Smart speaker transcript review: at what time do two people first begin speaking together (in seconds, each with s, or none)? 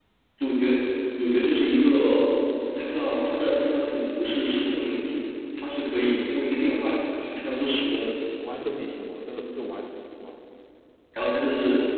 none